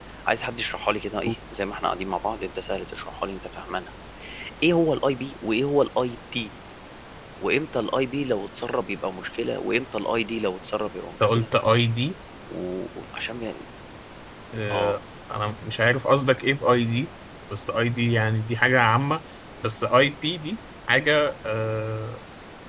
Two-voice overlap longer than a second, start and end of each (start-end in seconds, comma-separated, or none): none